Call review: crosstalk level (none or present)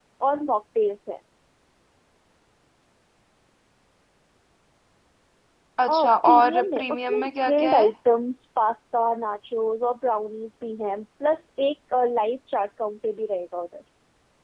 present